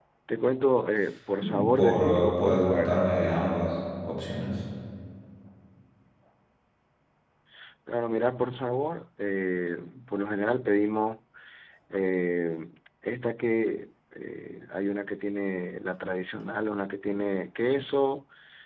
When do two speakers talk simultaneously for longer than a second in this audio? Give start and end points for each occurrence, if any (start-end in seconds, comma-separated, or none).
1.4-3.0